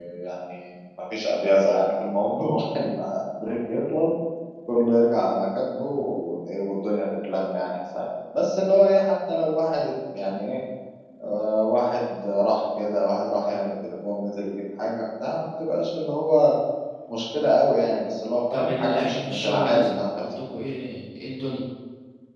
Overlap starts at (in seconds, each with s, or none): 18.5 s